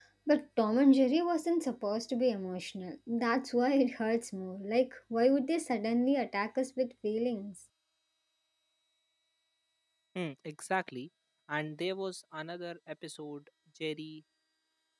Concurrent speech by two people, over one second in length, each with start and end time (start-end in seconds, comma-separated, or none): none